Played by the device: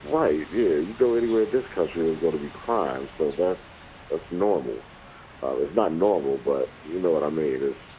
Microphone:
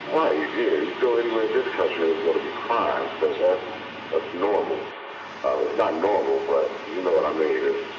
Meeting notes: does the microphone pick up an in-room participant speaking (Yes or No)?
No